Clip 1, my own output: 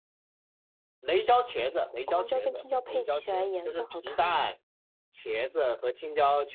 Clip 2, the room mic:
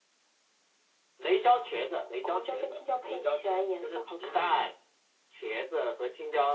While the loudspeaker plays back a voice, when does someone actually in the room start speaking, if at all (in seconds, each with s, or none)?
none